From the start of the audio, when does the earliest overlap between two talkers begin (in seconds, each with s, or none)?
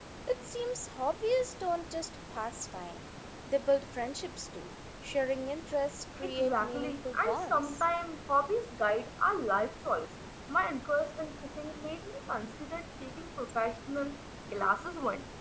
6.2 s